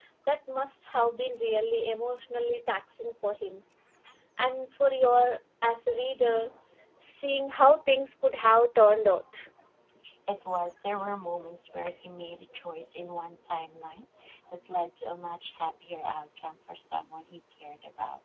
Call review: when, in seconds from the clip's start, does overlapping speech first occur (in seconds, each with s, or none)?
none